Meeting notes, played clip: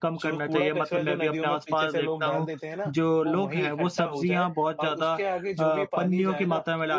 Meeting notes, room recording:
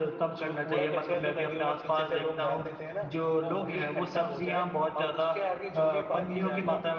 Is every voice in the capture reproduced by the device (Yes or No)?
Yes